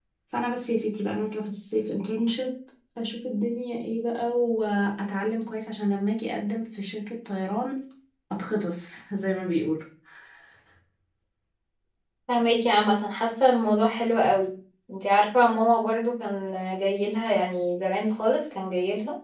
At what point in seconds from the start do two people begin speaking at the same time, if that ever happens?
none

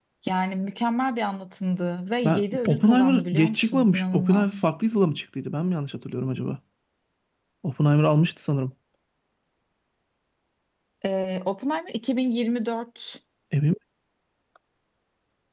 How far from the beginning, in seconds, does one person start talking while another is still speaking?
2.2 s

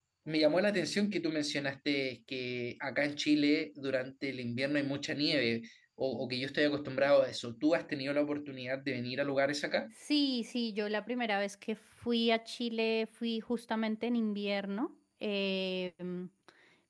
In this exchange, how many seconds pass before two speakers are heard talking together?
none

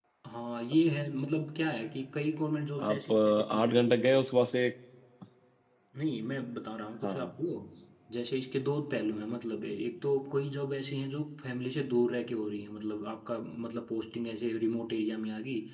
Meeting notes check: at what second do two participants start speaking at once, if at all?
2.9 s

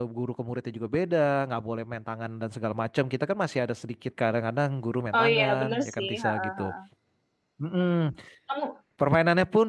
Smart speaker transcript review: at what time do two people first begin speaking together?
5.1 s

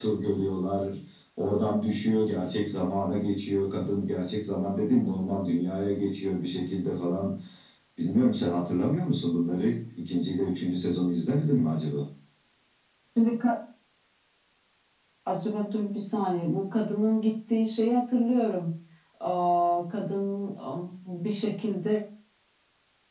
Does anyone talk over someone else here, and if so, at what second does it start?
none

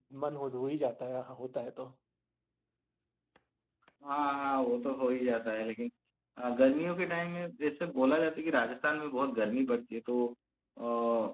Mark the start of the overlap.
none

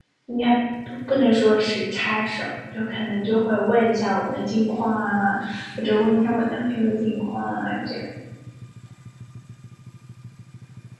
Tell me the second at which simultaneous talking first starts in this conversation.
none

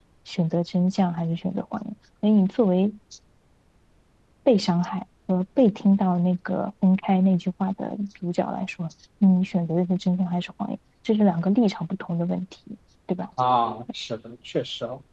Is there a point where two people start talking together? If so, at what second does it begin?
none

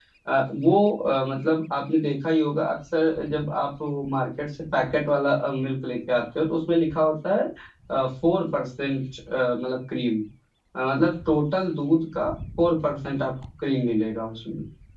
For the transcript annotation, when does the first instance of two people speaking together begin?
none

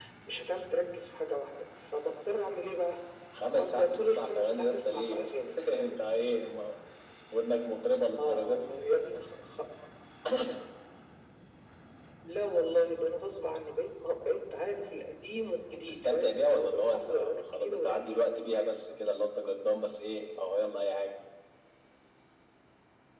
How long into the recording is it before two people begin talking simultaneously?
3.5 s

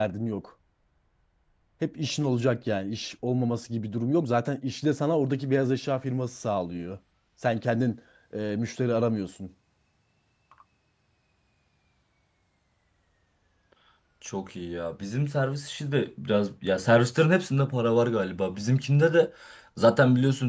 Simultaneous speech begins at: none

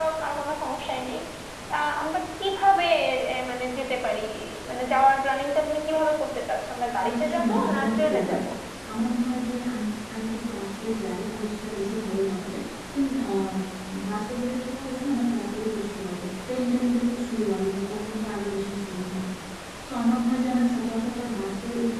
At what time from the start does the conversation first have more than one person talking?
7.0 s

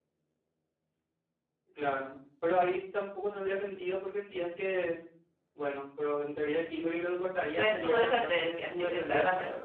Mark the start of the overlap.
7.6 s

